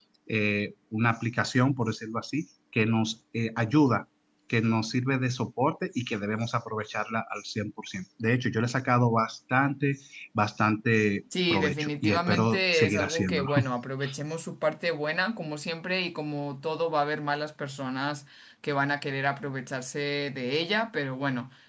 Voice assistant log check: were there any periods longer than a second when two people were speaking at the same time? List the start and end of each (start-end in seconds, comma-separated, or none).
11.5-13.4